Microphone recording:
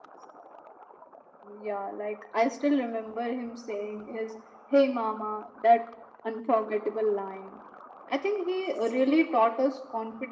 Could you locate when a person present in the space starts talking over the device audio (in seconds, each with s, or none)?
none